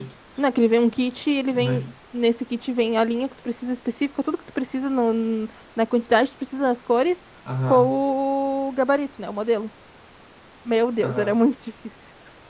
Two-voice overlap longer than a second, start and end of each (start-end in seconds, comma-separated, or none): none